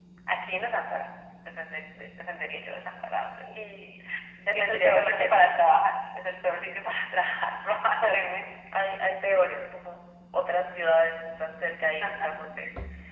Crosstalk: present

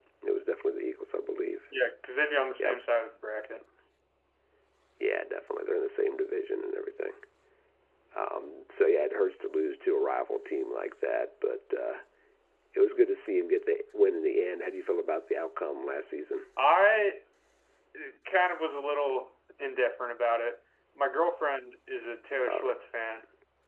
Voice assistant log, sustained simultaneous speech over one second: none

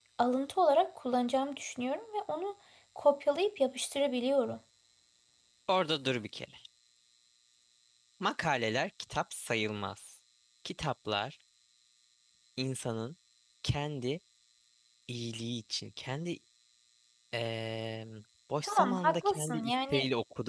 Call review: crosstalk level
present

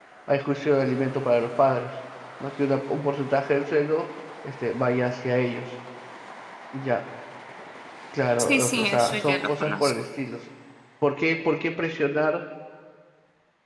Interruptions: present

